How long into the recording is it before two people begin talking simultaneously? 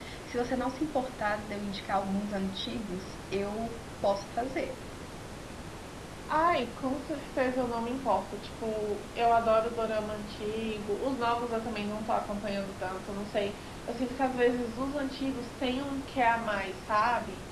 none

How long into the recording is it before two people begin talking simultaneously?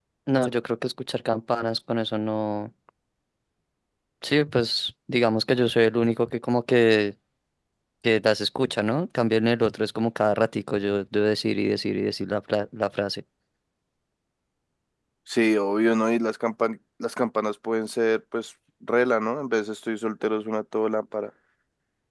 none

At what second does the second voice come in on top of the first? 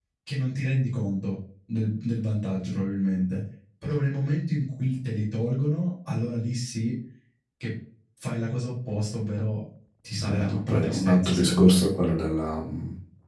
10.2 s

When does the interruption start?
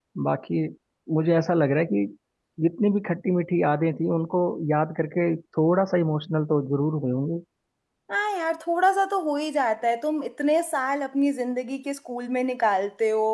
none

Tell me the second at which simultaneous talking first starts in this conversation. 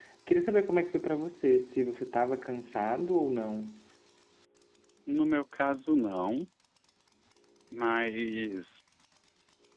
none

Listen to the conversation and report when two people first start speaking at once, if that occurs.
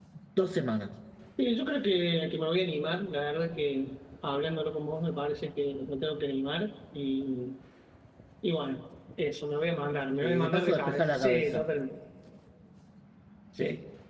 10.2 s

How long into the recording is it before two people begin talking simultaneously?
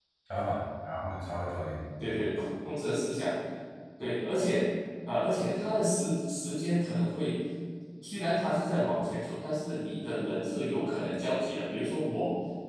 none

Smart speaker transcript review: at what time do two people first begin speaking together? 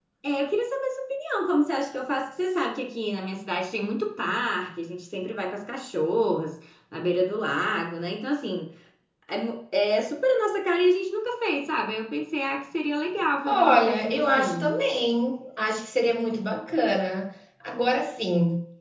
13.4 s

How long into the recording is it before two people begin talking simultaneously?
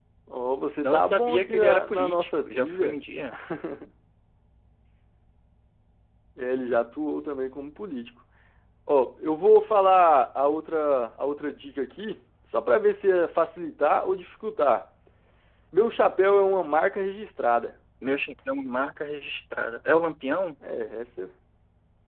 0.8 s

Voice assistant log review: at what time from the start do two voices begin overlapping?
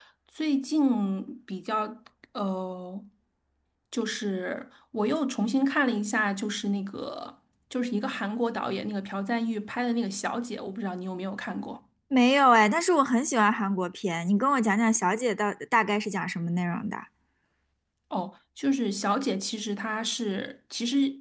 none

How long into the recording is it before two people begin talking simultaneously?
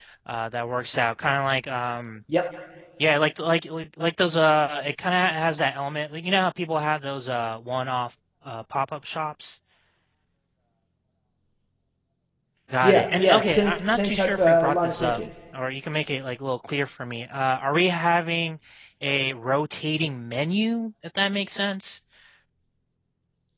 12.8 s

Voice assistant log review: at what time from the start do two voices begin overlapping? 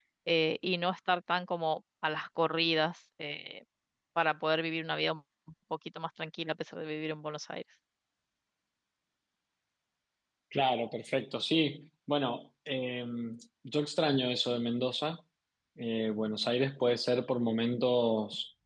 none

